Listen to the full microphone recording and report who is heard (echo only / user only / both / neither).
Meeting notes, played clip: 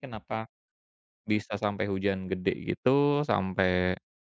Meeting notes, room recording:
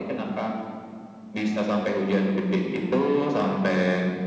echo only